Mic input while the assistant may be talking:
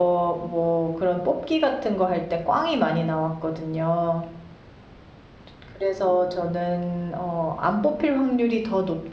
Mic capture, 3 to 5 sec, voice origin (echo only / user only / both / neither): user only